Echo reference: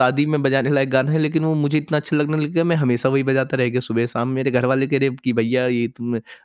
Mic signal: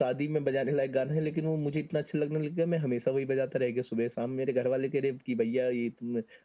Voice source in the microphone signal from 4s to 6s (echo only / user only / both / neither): echo only